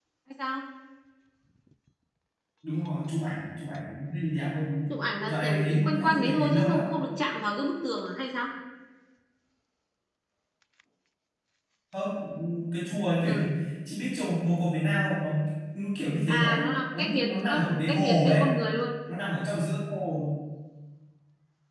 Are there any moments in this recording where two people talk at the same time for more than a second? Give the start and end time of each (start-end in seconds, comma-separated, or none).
4.9-6.8, 17.0-18.4